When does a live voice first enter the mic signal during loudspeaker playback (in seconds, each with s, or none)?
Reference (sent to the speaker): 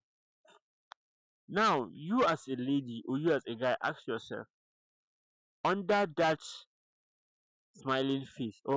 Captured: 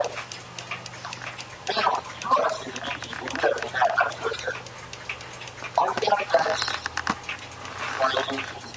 none